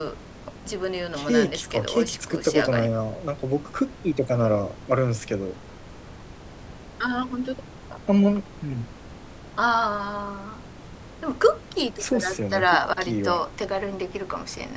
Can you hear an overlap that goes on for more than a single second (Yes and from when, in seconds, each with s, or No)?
Yes, from 1.1 s